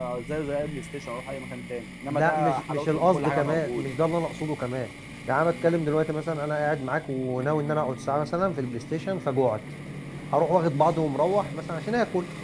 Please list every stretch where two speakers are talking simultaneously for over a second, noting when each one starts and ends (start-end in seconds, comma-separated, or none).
2.1-3.9